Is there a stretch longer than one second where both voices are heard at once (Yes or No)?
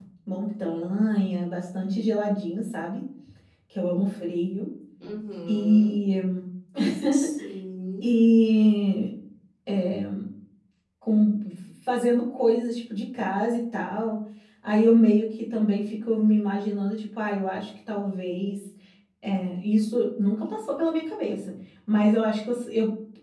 No